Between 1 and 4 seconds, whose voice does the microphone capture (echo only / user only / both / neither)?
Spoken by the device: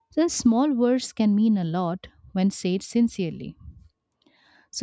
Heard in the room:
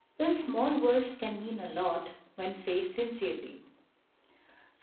echo only